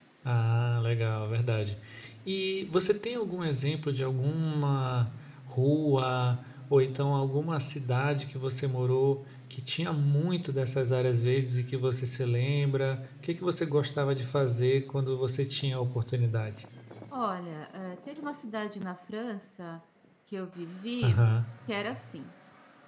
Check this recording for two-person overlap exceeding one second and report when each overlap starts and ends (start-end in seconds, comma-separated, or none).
none